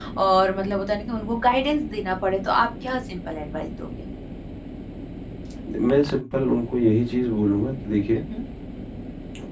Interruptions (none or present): none